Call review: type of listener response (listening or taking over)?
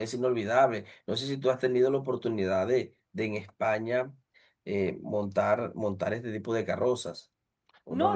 taking over